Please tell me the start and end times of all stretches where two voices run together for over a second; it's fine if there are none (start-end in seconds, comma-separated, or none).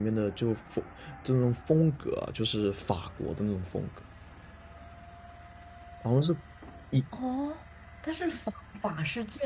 none